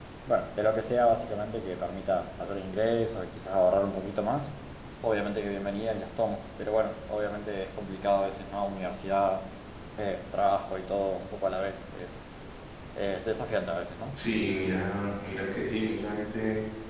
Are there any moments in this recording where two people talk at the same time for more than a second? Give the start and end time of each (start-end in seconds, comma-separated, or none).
none